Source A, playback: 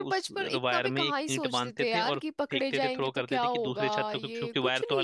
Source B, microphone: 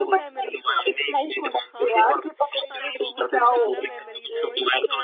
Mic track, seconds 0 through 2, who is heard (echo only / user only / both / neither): both